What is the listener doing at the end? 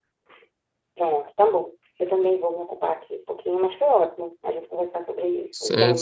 taking over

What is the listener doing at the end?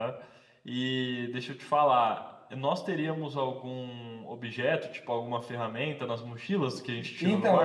taking over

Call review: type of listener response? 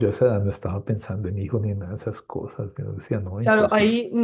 taking over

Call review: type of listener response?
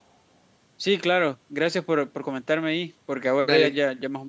listening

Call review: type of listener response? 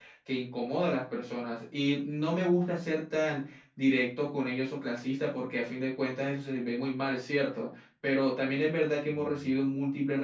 listening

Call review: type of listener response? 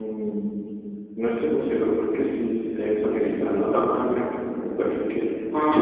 listening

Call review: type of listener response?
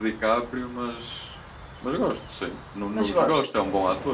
listening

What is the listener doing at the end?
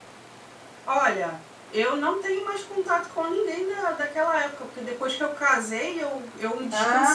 taking over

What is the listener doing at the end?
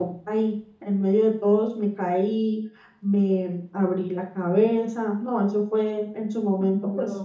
listening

